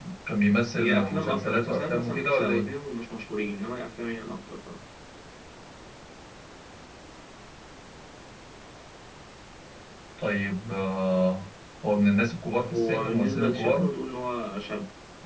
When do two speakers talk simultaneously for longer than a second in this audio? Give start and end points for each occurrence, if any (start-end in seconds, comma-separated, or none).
0.8-2.7, 12.6-13.9